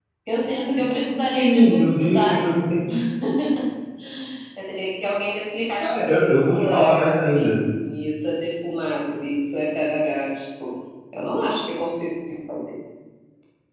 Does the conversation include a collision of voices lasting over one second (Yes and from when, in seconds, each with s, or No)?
Yes, from 1.2 s